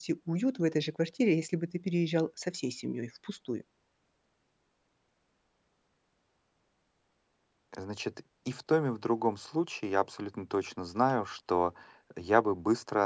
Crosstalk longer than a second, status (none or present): none